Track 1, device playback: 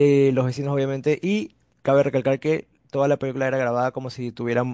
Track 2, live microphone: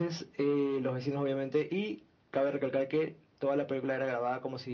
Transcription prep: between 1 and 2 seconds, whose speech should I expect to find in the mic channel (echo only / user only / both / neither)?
echo only